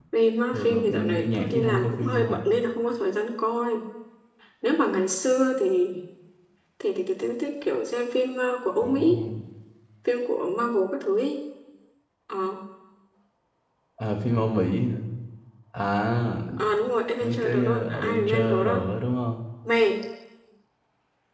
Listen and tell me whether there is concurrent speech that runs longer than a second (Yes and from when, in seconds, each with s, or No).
Yes, from 0.5 s